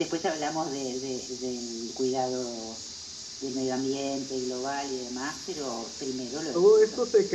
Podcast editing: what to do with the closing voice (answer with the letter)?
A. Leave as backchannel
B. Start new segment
B